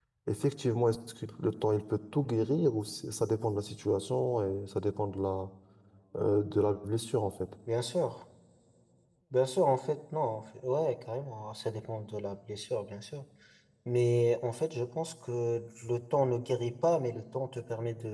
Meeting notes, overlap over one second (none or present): none